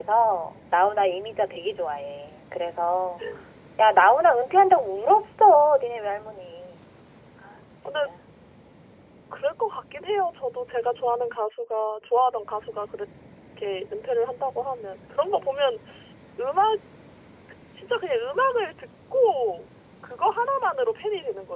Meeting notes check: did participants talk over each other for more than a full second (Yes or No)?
No